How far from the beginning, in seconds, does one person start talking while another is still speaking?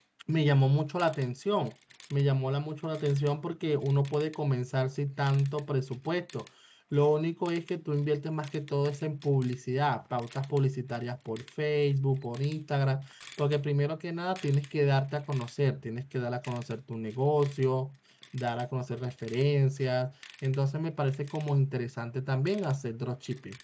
none

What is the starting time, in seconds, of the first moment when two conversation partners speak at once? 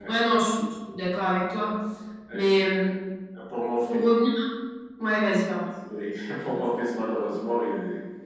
none

